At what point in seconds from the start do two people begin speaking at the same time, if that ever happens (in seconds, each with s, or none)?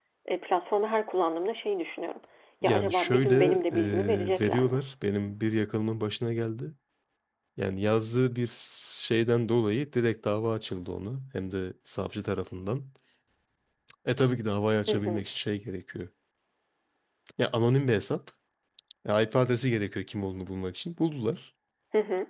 2.6 s